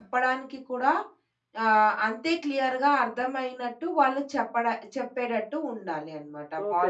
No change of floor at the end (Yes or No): No